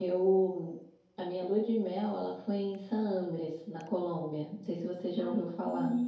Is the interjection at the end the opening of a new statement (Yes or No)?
Yes